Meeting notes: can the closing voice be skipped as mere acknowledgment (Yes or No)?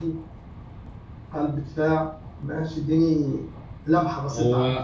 No